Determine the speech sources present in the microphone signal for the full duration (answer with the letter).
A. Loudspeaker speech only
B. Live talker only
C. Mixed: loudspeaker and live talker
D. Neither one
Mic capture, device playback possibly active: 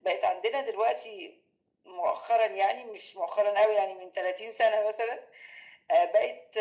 A